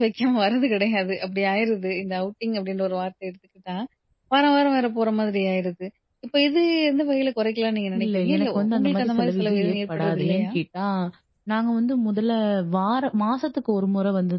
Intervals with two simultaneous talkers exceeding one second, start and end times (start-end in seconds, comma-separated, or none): 8.0-10.5